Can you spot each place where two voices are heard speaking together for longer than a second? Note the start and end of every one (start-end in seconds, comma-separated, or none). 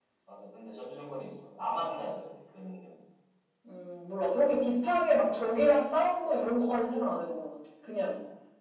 none